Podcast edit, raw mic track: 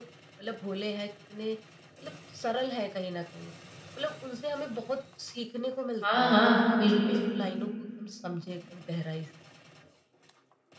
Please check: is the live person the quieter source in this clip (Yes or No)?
No